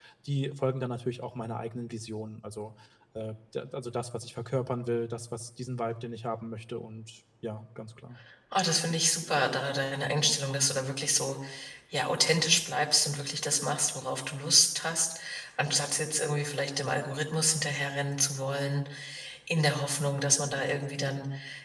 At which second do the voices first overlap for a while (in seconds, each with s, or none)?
none